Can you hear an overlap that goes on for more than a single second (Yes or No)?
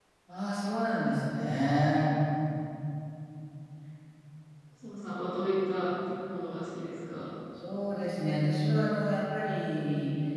No